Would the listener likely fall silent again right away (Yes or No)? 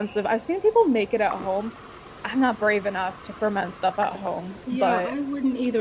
No